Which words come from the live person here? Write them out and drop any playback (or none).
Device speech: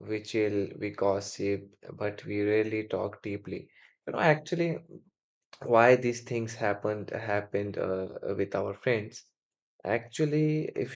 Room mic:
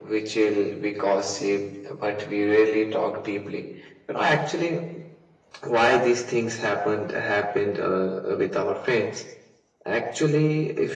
none